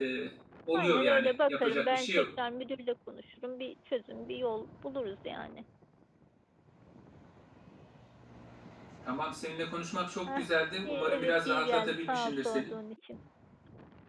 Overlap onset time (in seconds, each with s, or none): 0.7 s